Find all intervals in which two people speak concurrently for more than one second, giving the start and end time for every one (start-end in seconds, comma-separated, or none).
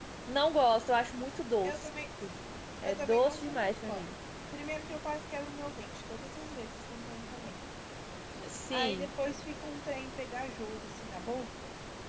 2.8-4.1